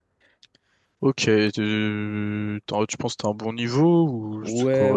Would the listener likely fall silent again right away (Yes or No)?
No